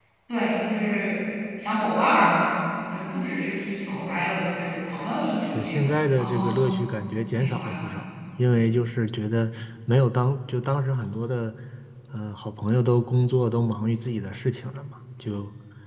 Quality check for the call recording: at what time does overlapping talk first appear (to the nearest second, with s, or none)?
5 s